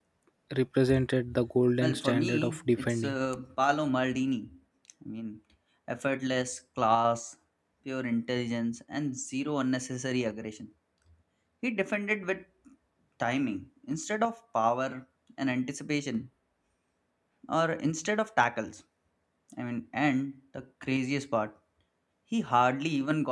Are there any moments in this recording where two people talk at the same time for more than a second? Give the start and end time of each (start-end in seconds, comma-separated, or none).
1.8-3.2